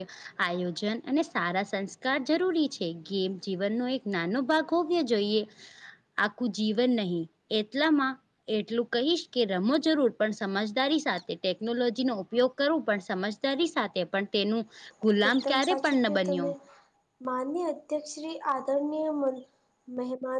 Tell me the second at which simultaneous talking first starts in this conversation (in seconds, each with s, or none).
15.3 s